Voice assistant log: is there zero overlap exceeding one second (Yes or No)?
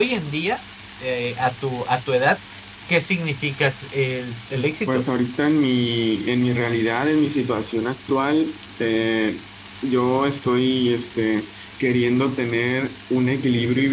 Yes